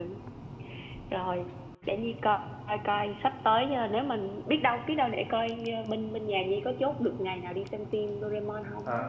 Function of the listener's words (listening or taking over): taking over